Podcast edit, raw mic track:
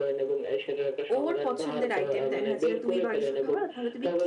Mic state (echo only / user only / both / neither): both